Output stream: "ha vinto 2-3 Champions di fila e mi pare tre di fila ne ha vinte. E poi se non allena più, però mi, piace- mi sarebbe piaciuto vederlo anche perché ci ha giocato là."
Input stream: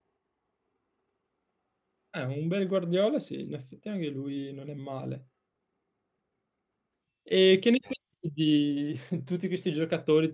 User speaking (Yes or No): Yes